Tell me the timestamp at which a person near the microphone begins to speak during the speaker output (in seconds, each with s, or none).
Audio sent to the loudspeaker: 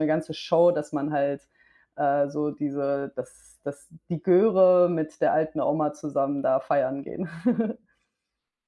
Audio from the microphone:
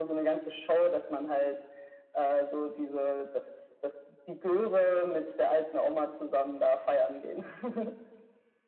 none